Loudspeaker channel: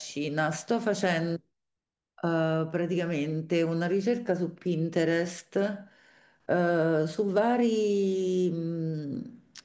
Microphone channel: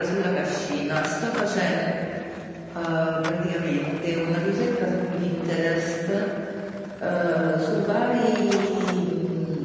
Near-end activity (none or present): none